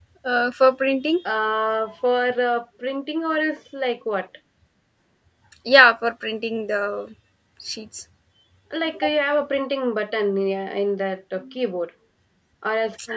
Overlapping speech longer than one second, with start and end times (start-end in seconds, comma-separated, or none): none